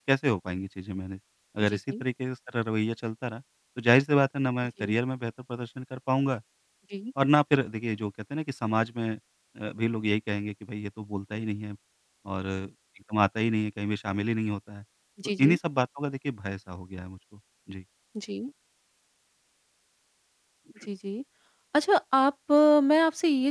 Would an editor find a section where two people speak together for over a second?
No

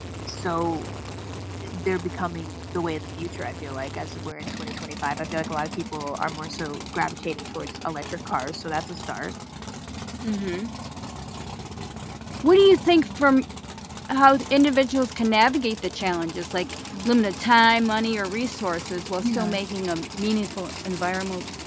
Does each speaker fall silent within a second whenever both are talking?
Yes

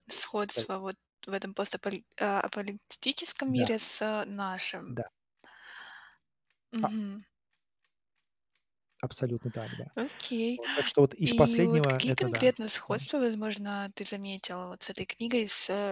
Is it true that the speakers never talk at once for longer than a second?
No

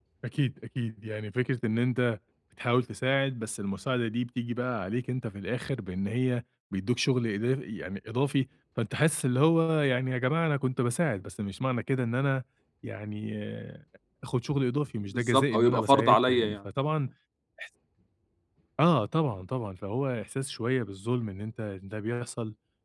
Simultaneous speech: Yes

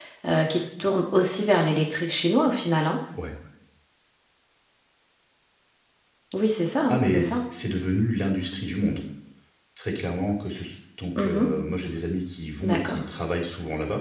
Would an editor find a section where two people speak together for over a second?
No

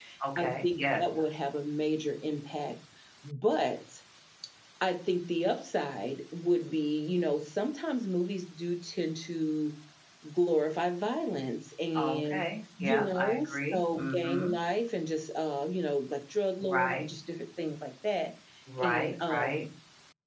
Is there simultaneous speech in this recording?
Yes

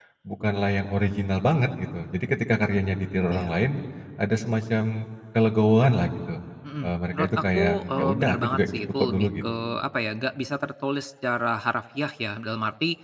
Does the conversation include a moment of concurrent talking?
Yes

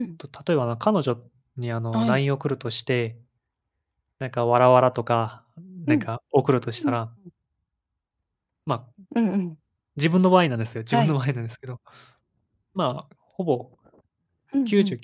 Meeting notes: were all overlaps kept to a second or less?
Yes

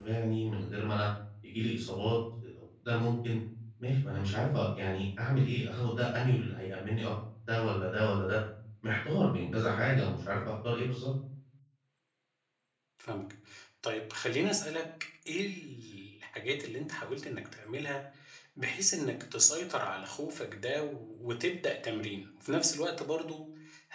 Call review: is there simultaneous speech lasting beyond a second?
No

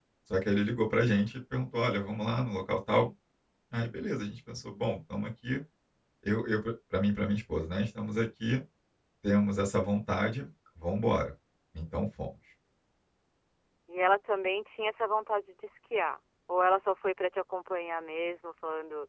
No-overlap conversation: Yes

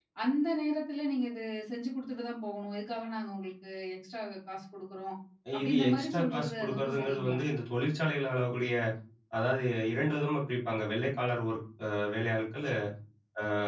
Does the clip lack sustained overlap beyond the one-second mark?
No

